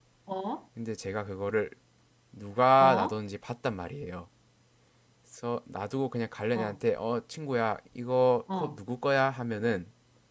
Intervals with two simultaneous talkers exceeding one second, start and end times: none

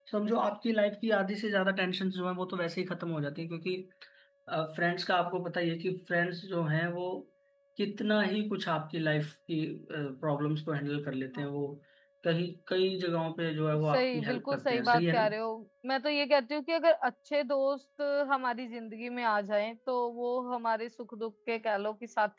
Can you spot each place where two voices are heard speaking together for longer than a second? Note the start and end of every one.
13.9-15.3

